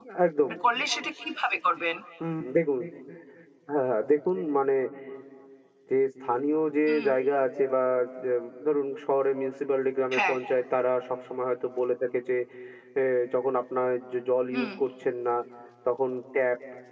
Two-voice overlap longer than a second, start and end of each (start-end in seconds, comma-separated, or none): none